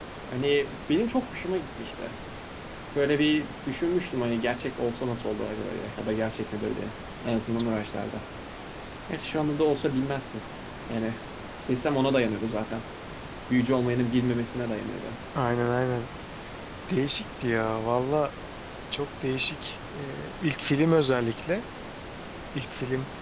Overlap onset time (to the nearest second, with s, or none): none